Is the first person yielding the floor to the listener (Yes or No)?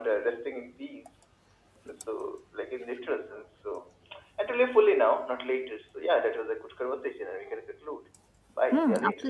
Yes